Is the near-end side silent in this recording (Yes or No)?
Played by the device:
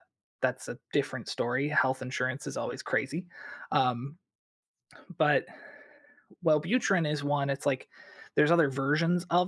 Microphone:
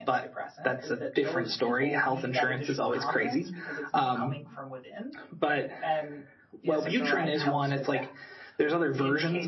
No